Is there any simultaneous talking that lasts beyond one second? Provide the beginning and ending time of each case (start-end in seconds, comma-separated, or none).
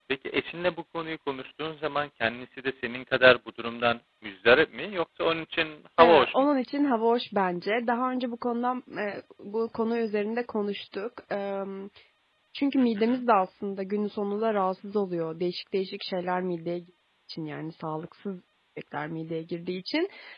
none